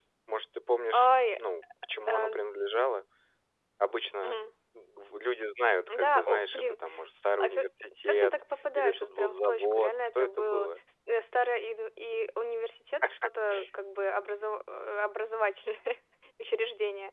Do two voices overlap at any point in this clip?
Yes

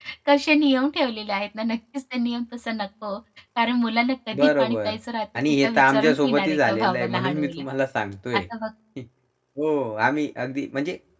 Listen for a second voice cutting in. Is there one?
Yes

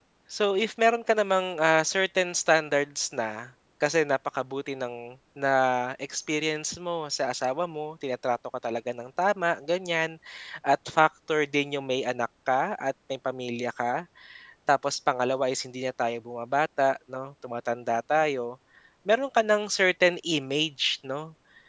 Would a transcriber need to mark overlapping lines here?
No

